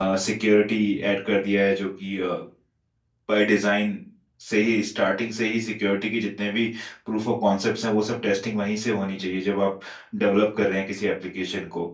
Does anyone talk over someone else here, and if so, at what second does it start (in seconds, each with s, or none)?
none